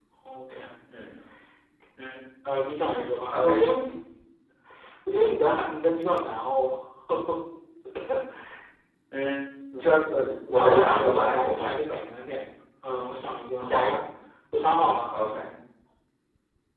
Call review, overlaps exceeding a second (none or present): present